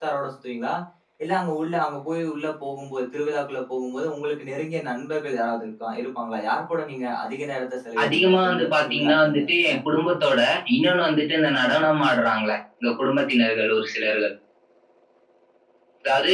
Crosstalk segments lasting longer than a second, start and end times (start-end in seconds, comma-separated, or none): 8.0-9.8